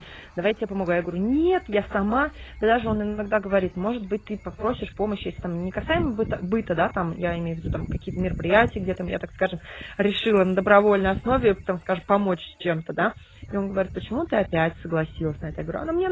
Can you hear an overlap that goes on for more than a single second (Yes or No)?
No